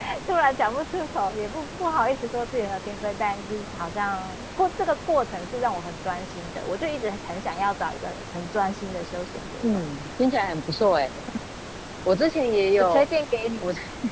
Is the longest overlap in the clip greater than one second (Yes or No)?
No